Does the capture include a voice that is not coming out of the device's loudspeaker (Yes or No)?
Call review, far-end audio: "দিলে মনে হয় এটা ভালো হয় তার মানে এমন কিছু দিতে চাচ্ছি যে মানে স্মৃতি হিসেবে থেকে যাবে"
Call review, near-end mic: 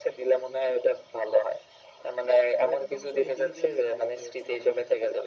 Yes